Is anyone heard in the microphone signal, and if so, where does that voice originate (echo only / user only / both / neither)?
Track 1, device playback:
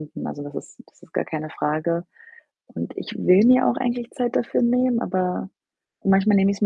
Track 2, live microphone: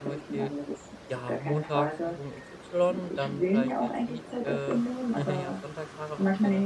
both